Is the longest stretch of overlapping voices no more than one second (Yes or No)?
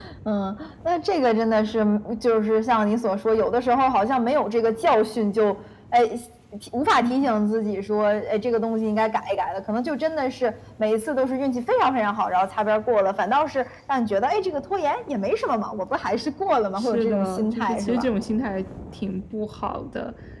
No